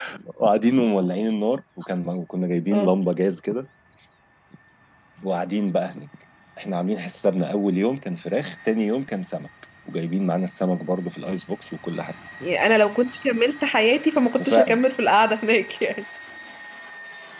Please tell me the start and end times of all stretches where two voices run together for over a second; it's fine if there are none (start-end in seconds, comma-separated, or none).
none